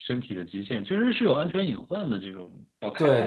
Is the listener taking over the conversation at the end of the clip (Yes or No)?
Yes